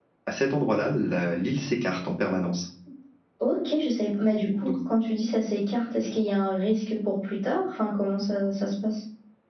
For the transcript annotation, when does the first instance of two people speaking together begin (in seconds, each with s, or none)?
none